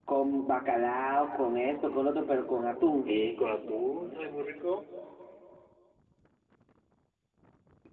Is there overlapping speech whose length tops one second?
No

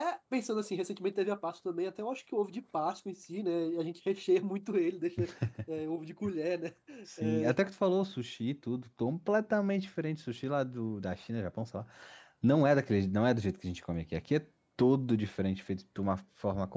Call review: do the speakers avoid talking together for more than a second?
Yes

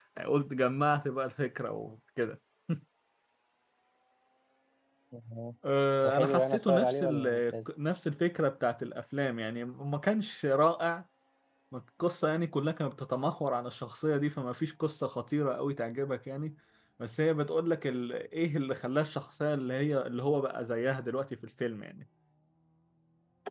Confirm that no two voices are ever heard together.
No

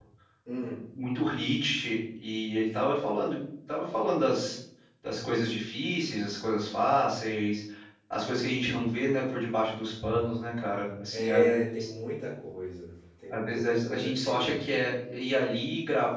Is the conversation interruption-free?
No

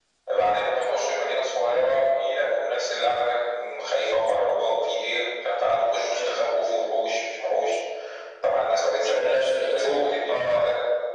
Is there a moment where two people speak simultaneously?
Yes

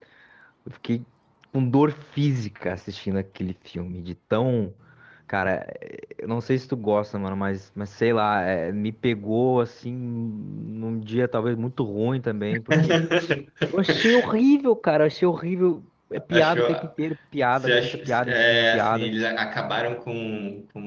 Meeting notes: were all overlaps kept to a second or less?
No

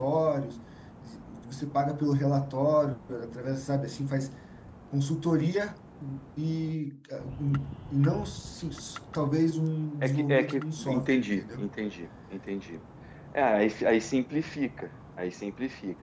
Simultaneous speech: Yes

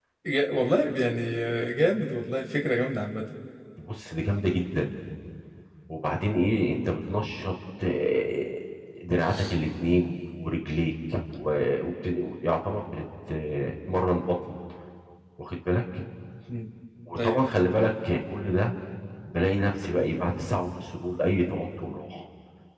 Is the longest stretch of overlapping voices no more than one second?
Yes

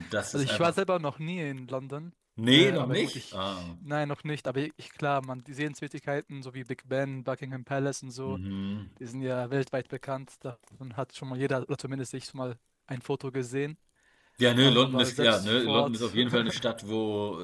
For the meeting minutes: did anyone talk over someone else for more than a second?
Yes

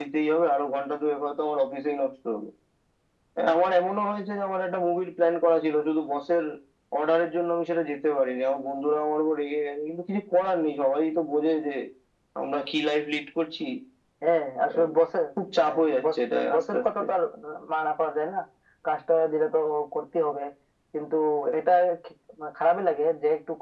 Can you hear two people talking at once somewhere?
Yes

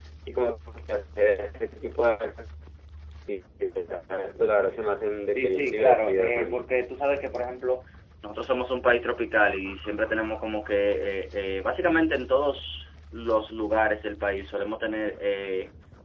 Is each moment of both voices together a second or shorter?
No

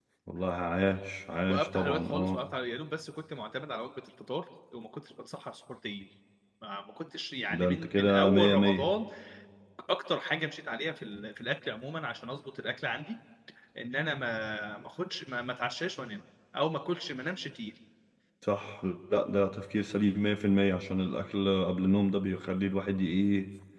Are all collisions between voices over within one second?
No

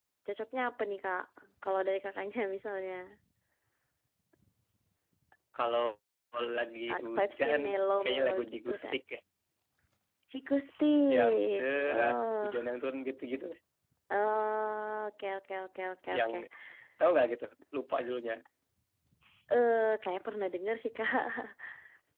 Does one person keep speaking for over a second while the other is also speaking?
Yes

